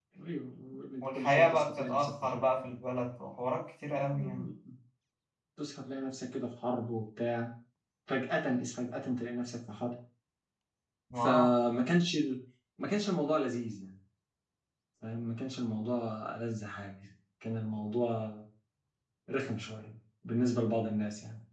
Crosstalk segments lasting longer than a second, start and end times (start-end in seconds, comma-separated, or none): 1.0-2.5